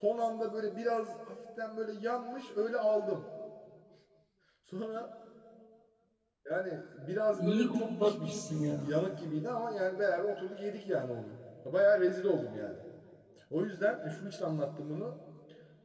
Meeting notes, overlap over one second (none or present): present